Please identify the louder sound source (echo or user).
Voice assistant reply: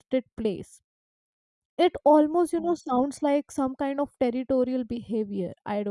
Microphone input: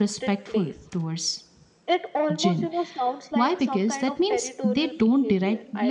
user